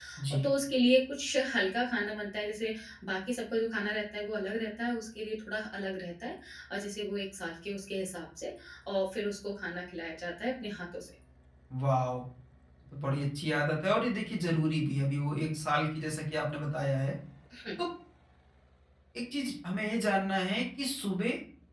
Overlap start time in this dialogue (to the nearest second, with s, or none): none